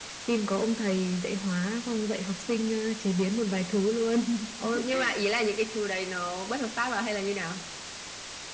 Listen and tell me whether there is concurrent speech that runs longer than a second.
No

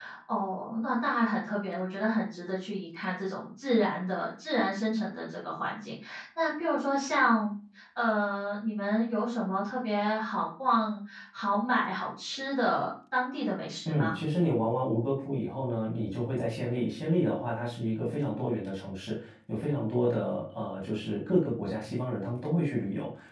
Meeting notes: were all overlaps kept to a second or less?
Yes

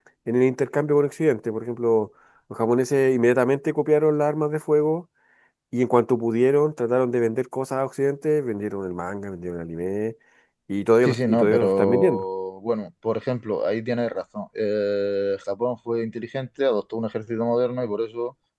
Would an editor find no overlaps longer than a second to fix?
No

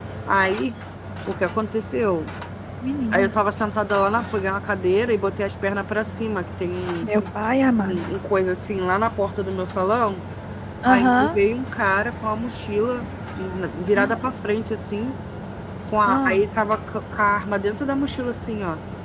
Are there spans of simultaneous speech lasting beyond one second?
No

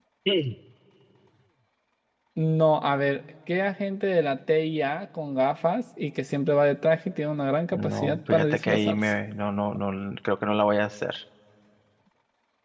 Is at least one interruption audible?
Yes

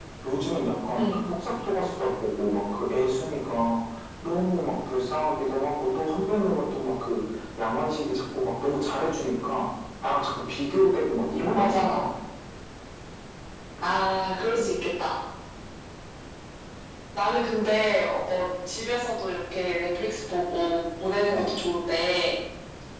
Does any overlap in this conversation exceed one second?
No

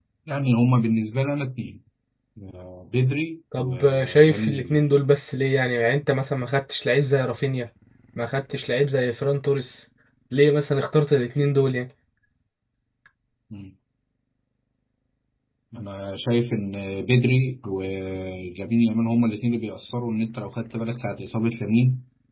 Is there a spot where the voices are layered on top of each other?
Yes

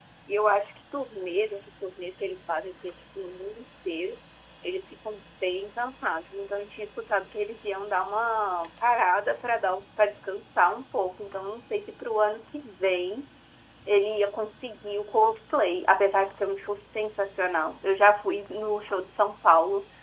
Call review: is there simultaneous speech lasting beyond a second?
No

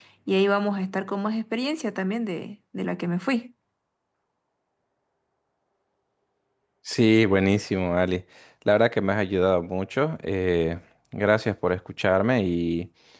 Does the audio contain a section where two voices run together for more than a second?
No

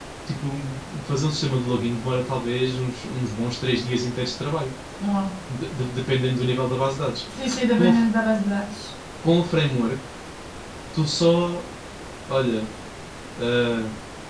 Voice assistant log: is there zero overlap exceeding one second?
Yes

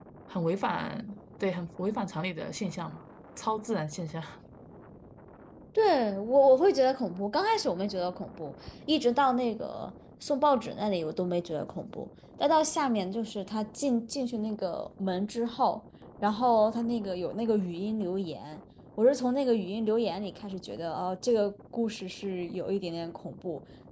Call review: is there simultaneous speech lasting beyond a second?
No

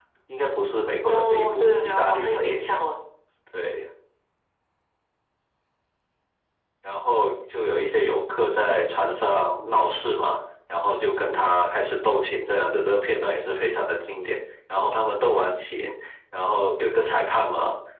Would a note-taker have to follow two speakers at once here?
Yes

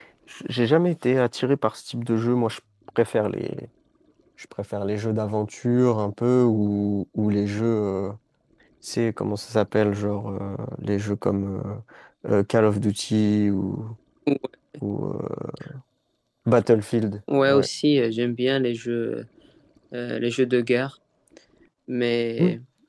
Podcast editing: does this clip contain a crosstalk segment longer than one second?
No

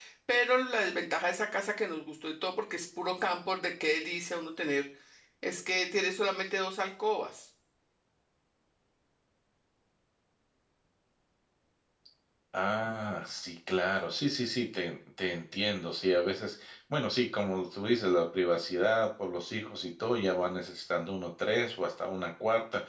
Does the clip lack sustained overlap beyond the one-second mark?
Yes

